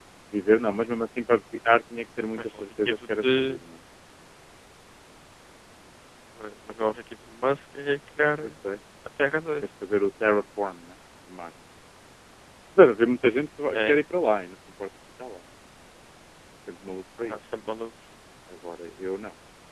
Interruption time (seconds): 2 s

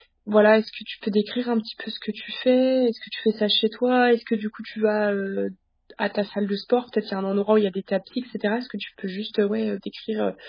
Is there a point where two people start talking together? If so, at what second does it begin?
none

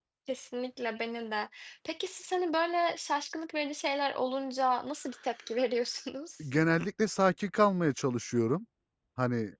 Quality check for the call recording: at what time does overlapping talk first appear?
none

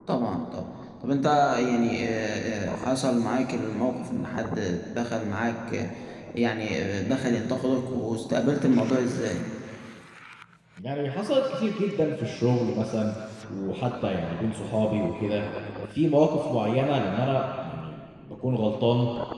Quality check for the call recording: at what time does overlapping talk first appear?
none

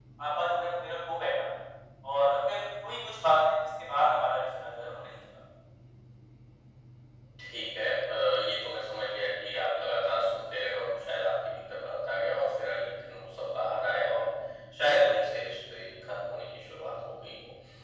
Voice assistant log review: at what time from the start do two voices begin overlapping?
none

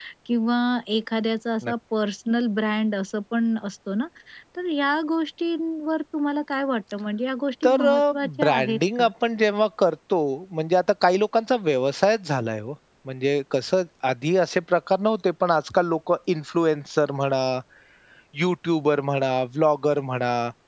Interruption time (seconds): 8 s

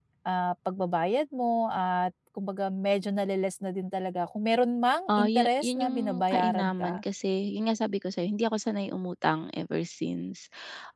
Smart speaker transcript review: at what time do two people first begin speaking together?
5 s

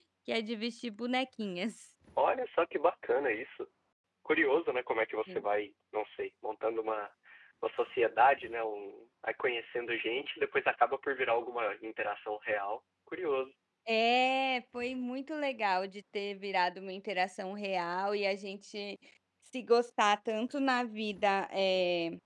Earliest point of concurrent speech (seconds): none

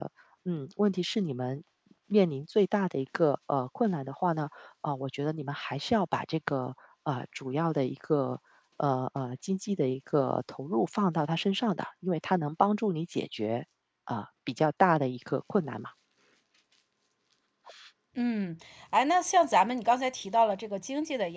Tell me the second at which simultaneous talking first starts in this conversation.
none

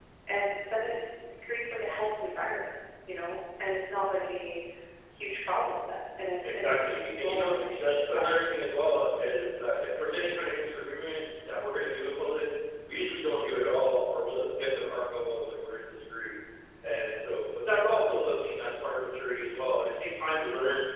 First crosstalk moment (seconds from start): 6 s

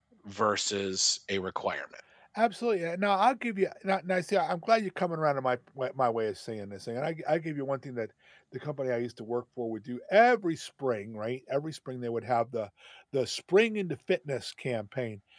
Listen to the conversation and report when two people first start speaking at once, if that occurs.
none

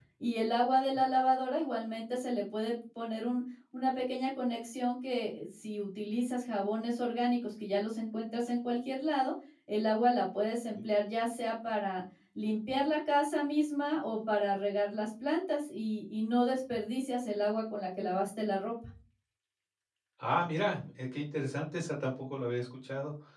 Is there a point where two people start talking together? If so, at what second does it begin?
none

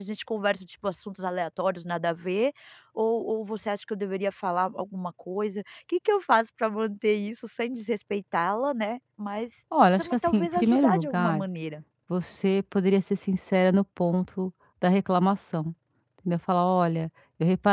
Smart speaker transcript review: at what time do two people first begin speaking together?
10 s

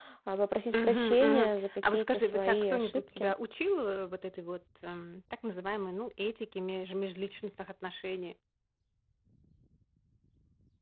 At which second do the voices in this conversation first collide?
1 s

